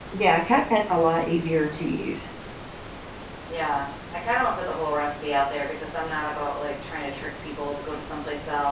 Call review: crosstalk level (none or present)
none